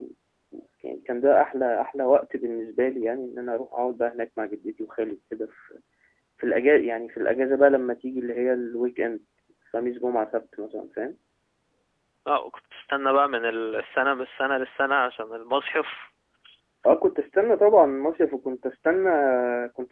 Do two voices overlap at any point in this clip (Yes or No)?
No